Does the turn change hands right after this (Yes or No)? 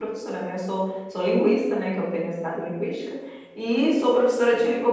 No